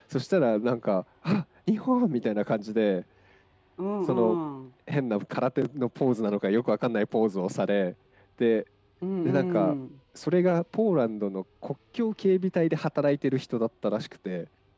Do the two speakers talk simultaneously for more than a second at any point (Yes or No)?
No